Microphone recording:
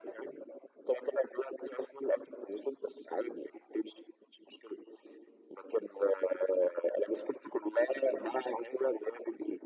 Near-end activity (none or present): none